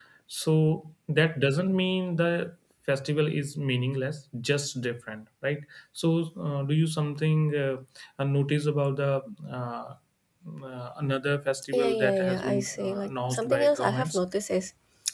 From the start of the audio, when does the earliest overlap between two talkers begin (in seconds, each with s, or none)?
11.7 s